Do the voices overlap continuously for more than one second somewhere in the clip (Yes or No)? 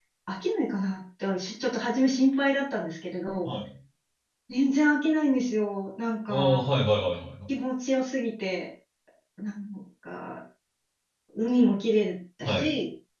No